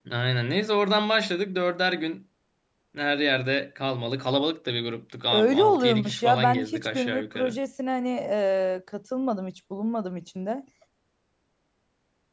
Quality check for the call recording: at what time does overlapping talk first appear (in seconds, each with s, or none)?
5.3 s